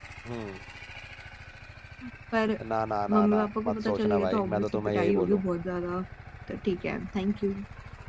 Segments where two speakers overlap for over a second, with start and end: 3.1-5.4

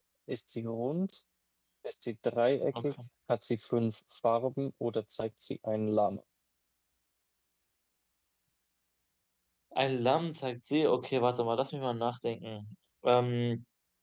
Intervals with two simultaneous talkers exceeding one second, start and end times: none

